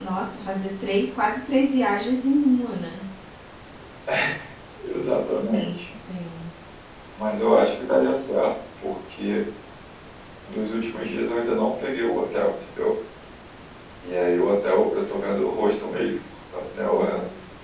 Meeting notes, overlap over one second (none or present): none